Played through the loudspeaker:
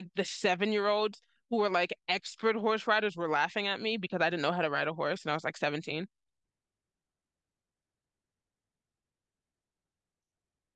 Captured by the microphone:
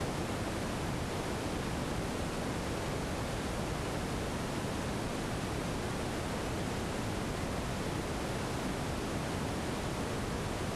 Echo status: none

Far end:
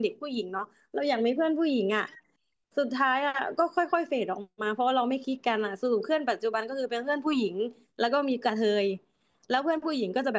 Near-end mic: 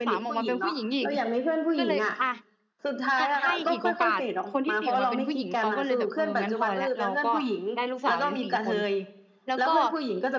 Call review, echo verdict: present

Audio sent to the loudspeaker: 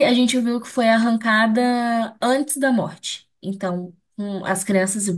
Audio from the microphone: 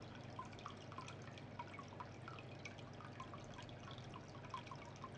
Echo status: none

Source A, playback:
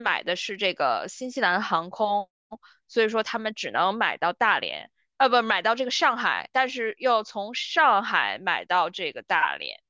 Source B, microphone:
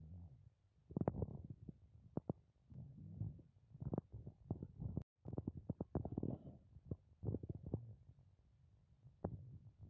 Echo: none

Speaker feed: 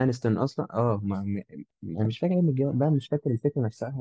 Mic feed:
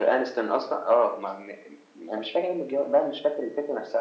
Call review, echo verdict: present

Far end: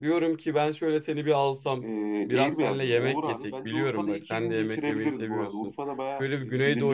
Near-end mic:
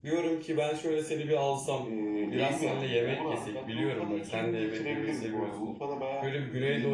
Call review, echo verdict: present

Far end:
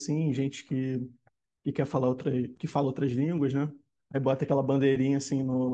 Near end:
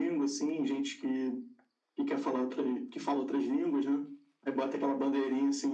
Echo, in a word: present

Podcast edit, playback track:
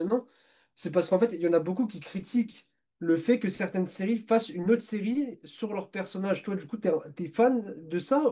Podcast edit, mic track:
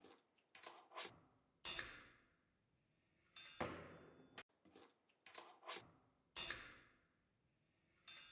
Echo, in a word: none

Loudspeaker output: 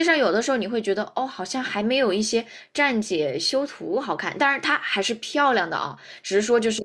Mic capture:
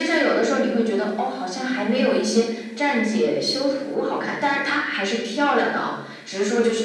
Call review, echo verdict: present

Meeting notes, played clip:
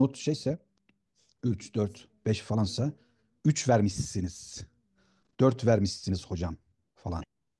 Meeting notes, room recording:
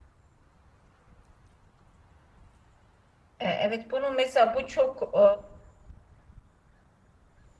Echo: none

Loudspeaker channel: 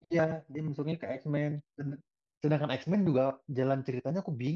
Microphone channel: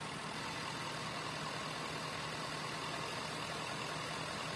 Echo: none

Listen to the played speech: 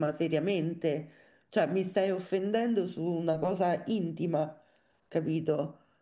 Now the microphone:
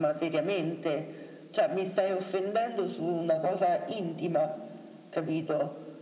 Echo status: present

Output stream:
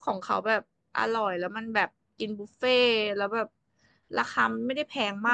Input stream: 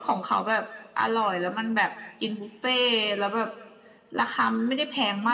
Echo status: present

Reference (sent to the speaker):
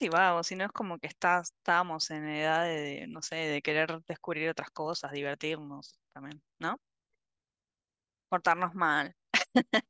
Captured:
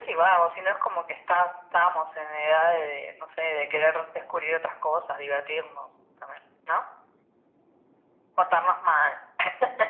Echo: present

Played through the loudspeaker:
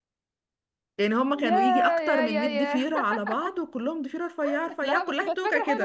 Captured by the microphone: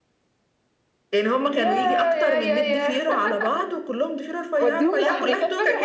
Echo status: present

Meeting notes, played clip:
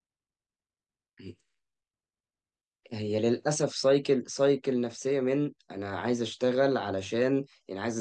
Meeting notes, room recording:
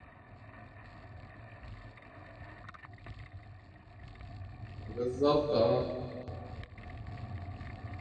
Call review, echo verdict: none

